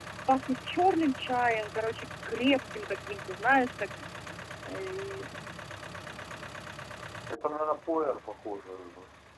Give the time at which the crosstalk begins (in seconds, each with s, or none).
none